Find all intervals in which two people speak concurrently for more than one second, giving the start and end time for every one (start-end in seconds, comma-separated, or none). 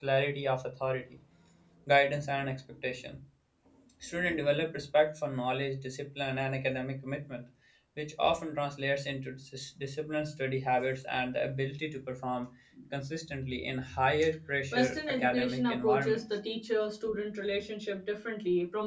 14.7-16.2